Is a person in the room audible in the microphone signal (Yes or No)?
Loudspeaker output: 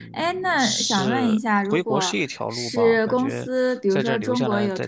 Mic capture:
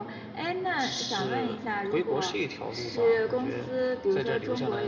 No